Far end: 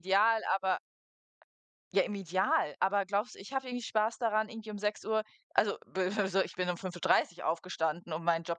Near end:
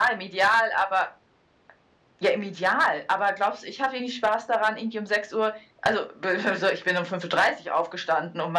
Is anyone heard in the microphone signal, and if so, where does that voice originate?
echo only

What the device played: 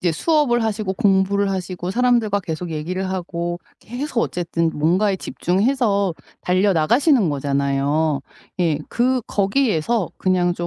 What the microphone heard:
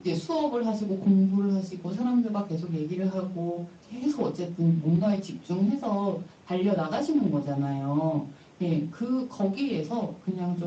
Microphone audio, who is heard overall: echo only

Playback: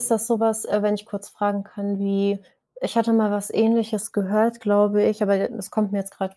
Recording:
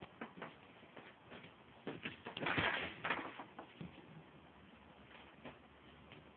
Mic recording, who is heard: neither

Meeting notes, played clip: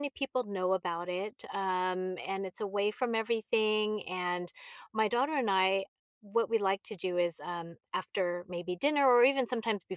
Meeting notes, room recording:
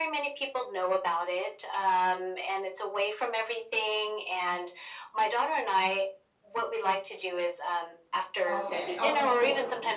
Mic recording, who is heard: both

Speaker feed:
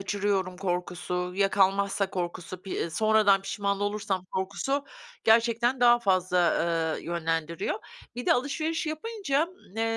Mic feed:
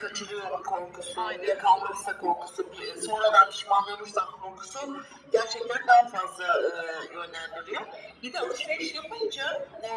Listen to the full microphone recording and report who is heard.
both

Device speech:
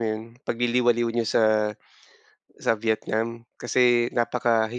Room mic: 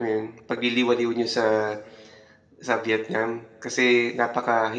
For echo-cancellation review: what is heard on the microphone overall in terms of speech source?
echo only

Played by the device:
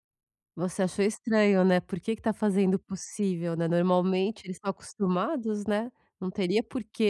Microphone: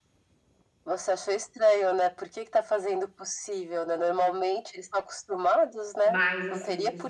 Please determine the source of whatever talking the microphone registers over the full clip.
both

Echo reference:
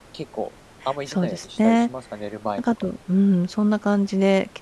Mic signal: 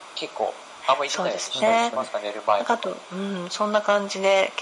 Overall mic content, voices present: both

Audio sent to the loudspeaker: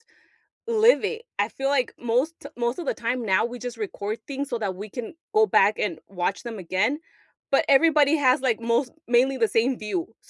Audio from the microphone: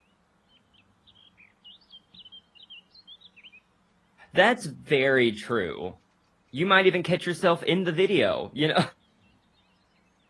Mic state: user only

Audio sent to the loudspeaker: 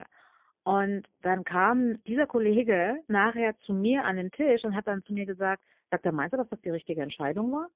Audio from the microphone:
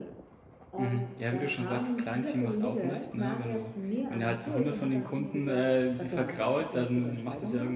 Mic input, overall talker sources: both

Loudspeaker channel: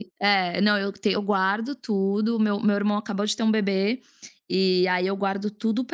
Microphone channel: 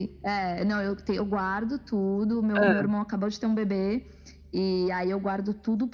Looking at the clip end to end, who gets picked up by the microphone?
both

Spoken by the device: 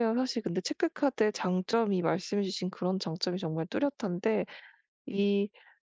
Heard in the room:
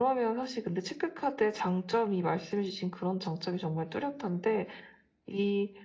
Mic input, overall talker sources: echo only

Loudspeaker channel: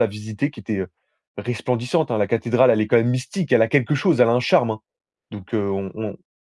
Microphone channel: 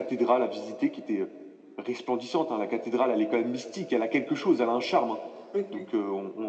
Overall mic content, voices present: both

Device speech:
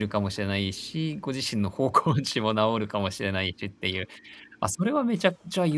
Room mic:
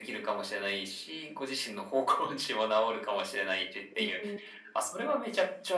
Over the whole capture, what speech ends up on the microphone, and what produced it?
both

